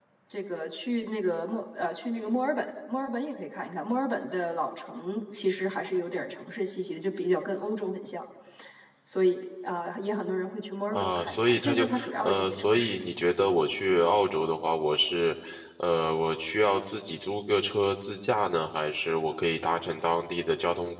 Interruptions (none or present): present